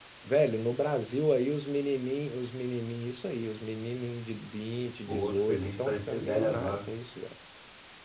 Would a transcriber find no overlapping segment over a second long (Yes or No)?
No